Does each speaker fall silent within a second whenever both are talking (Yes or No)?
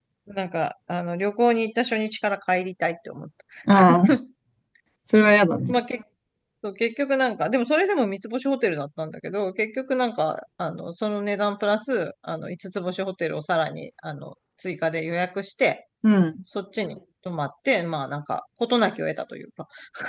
Yes